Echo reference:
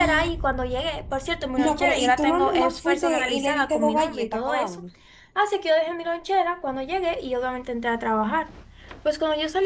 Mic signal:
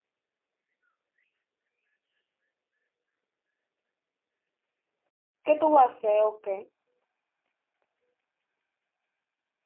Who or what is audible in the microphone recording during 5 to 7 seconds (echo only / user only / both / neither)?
user only